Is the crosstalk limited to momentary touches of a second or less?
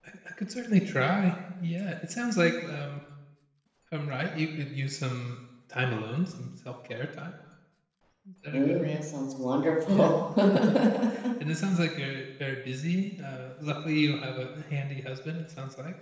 Yes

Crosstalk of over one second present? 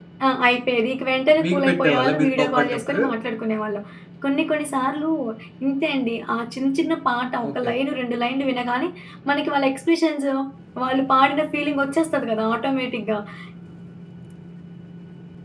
Yes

